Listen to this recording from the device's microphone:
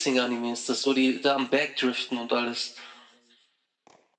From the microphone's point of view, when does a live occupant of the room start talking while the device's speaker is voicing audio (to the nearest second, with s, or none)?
none